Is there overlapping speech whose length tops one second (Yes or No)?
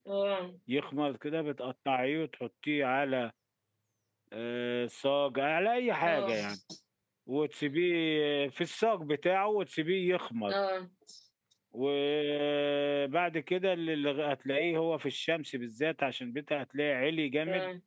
No